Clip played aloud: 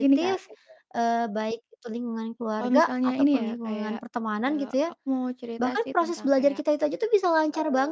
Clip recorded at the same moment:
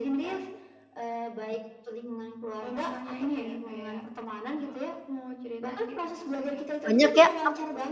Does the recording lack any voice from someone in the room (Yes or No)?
No